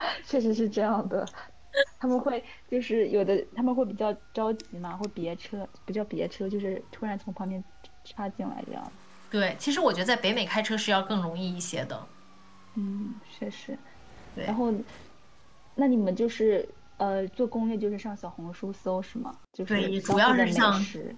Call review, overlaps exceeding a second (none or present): present